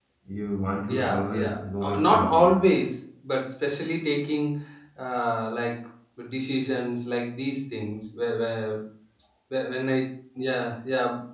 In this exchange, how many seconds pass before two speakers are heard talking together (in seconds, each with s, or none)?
1.0 s